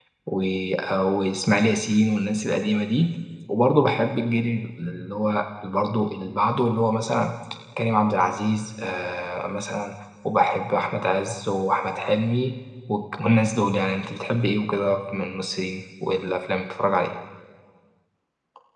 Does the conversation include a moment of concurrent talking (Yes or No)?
No